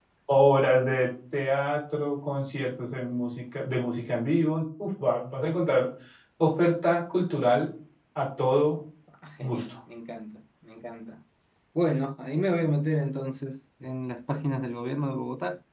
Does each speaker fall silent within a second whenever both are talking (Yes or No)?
Yes